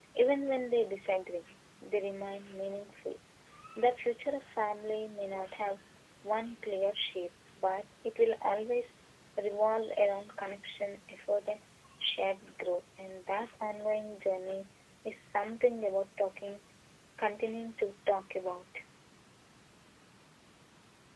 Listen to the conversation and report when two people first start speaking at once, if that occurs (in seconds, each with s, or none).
none